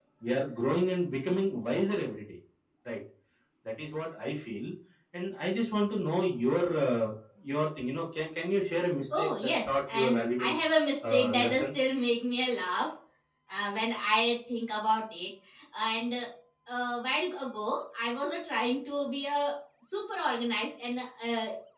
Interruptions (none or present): present